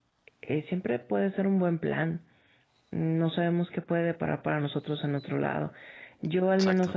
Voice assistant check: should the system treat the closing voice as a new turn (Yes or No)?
No